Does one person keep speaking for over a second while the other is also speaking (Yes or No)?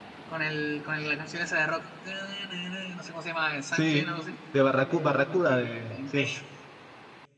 Yes